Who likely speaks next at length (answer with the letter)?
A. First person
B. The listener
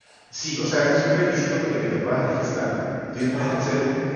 A